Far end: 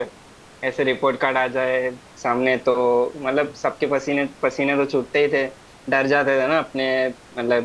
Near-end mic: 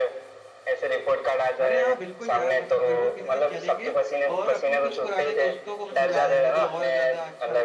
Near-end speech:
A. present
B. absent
A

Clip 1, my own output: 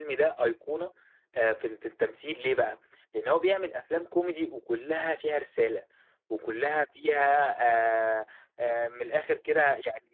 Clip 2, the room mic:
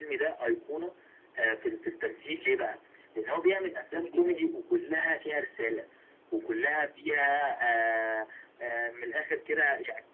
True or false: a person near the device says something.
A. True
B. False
A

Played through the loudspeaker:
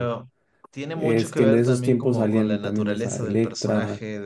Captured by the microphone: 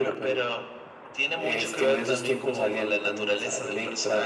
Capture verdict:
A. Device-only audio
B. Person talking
A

